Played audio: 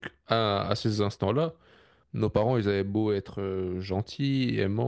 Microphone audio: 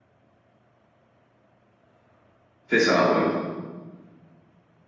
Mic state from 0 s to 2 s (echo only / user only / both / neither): neither